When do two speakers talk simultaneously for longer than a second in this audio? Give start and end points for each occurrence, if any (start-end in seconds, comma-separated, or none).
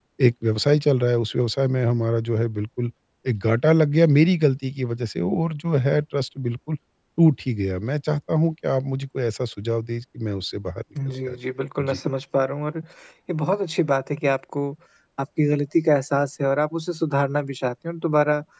none